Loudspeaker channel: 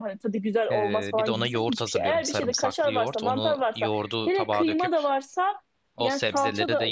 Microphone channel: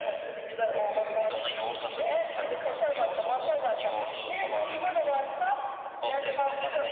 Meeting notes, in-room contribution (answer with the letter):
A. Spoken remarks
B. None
B